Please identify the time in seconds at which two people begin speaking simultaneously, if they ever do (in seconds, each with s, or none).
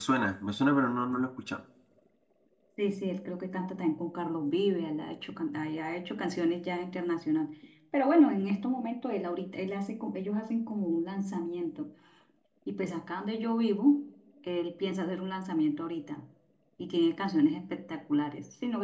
none